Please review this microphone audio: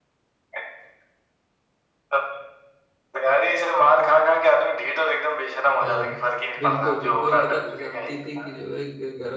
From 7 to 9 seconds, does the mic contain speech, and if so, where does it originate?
both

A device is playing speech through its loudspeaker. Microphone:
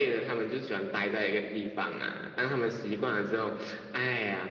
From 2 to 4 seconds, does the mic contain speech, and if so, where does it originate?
echo only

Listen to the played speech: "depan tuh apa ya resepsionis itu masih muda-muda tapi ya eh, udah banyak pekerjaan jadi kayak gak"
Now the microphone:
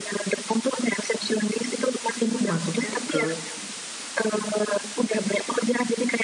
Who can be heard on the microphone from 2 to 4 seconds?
both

